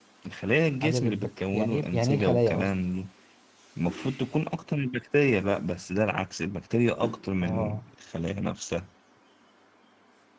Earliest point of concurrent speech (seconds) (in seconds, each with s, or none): 0.8 s